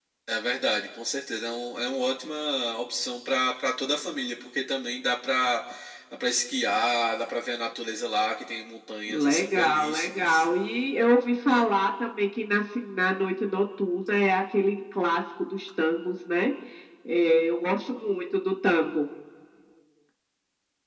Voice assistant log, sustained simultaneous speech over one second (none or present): present